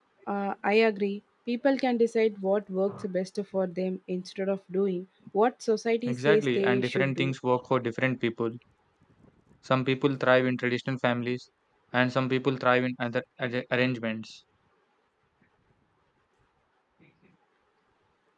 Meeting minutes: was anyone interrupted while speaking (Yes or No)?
Yes